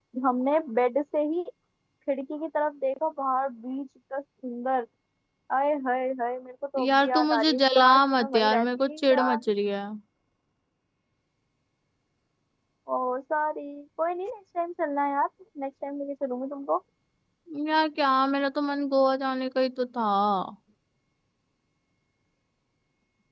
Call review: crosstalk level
present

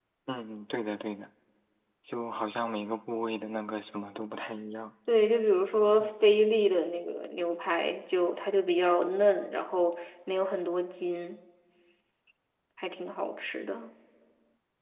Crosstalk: none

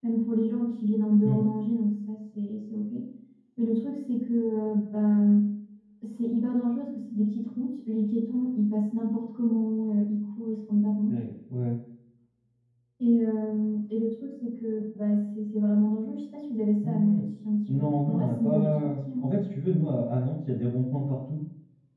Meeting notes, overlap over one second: present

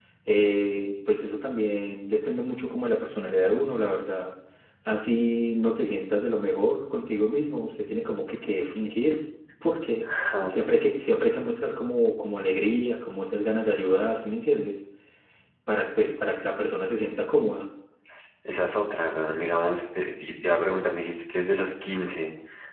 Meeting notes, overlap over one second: none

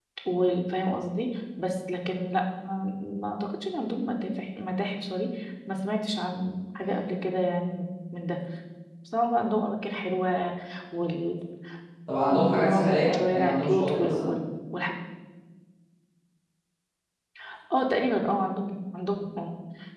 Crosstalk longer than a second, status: present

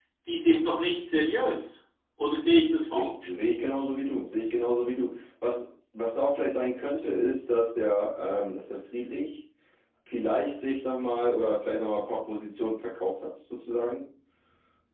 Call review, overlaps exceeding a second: none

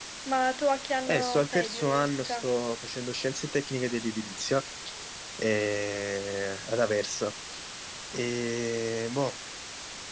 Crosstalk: present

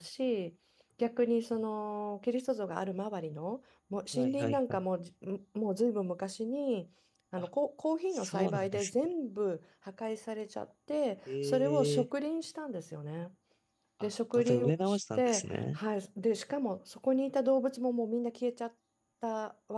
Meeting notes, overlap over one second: present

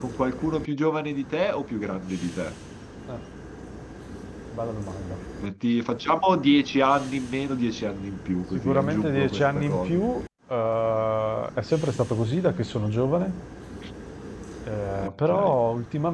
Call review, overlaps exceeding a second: present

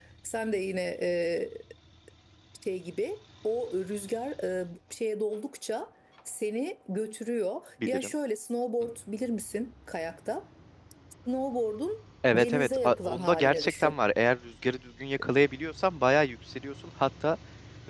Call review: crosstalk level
present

